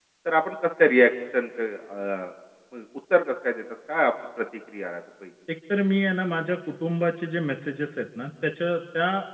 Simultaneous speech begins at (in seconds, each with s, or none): none